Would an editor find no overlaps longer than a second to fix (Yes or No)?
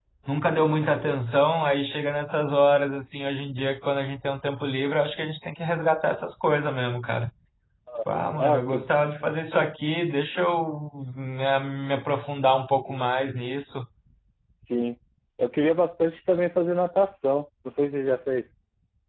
Yes